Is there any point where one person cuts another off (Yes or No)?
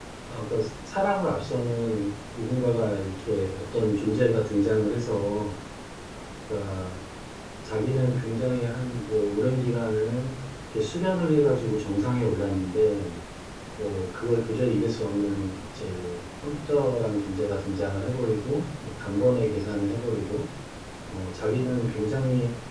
No